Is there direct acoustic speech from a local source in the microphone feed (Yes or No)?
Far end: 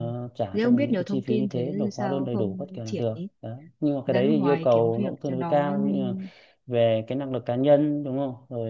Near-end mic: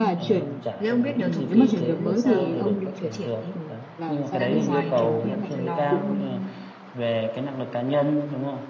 Yes